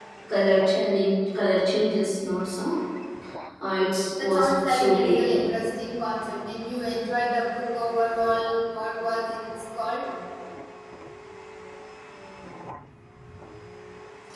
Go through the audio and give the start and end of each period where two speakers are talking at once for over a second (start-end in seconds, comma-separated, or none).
4.2-5.5